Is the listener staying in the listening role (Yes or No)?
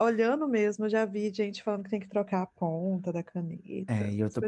No